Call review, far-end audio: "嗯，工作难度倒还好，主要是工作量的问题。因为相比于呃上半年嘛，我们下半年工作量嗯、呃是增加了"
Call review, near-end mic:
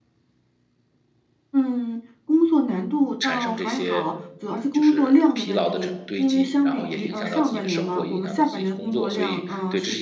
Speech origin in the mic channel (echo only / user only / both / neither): both